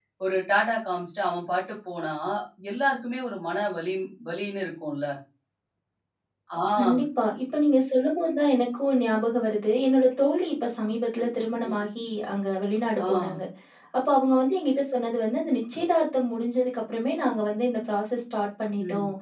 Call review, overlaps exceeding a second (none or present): none